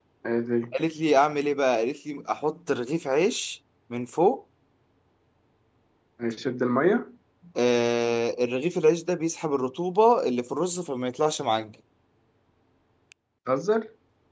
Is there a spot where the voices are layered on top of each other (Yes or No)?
No